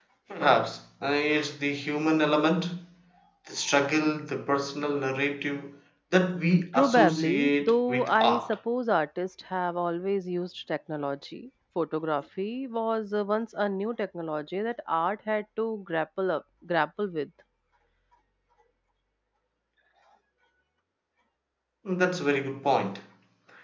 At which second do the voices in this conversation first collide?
6.8 s

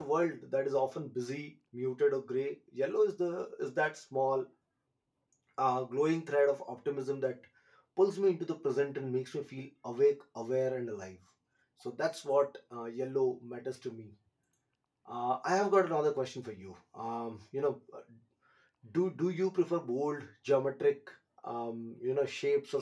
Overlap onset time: none

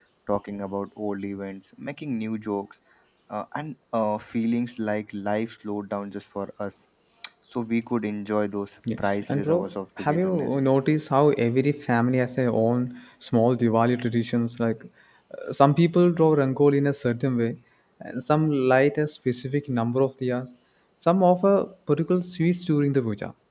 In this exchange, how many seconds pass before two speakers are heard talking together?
8.9 s

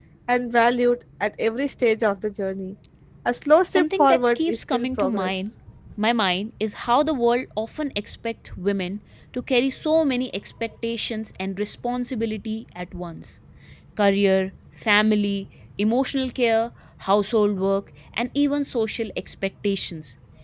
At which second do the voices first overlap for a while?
3.7 s

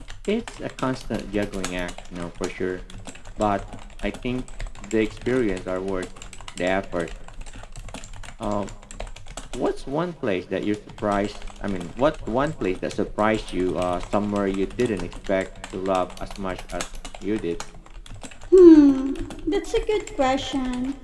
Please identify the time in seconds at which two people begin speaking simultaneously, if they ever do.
none

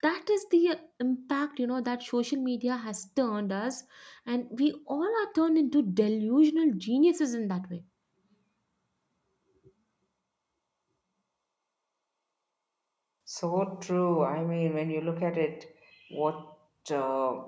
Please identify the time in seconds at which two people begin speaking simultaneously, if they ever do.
none

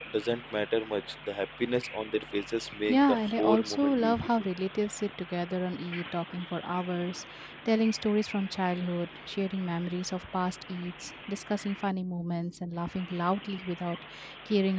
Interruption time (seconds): 2.9 s

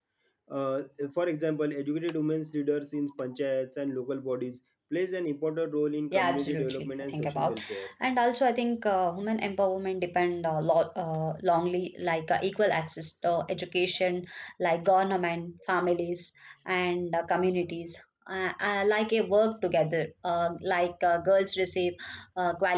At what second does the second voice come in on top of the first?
6.1 s

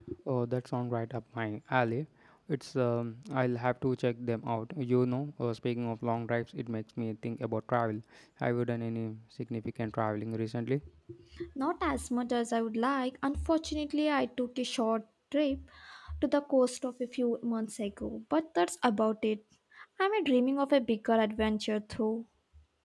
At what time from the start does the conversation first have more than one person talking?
none

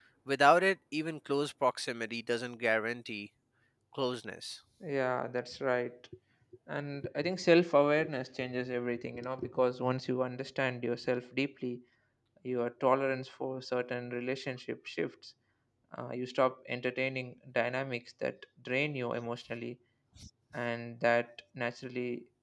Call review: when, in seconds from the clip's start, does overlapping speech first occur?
none

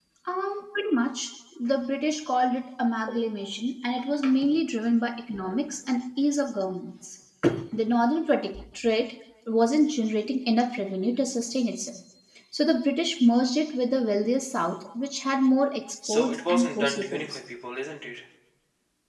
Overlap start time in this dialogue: 16.0 s

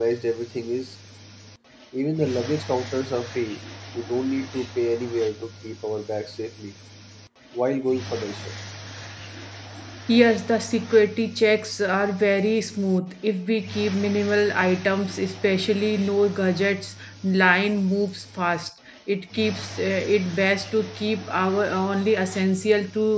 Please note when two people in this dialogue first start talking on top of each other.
none

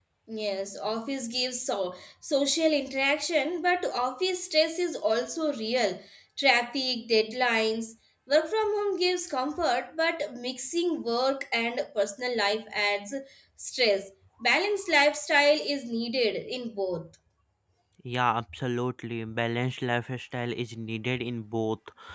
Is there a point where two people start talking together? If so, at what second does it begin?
none

